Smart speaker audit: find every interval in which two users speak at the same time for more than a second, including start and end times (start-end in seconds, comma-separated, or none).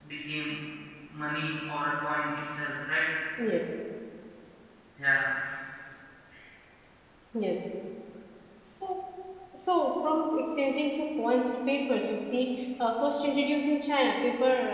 none